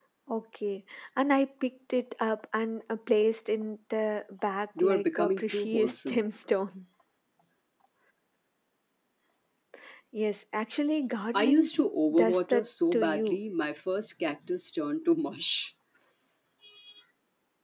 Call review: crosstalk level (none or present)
present